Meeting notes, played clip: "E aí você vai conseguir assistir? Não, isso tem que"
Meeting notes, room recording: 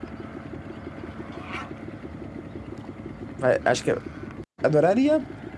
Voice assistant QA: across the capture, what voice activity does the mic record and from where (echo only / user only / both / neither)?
user only